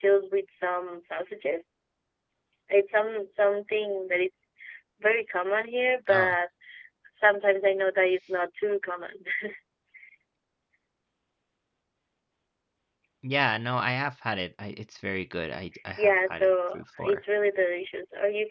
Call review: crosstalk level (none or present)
present